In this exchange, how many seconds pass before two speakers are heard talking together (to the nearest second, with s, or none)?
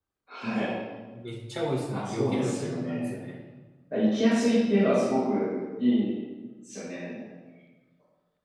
2 s